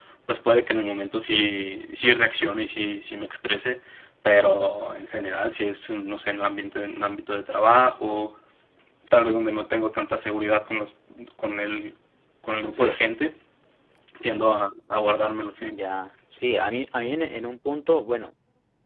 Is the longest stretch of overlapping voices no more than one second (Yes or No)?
Yes